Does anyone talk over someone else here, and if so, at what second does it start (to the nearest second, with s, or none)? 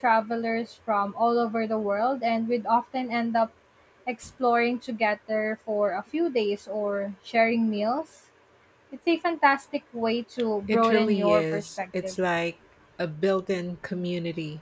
11 s